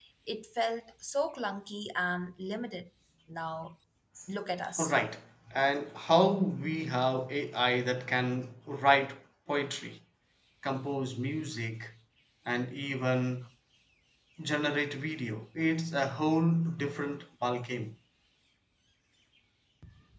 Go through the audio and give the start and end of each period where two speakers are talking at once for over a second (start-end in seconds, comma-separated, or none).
none